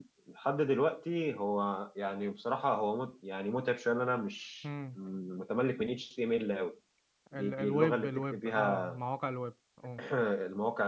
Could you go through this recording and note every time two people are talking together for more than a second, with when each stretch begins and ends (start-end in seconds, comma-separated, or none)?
7.3-8.9